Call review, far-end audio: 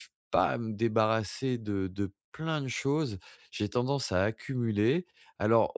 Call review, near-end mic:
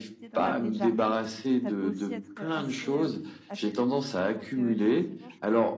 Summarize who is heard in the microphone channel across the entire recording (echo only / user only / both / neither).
both